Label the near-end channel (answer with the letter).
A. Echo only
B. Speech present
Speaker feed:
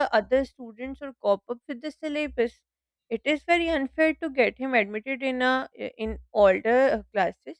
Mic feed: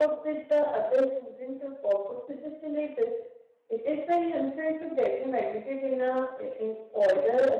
A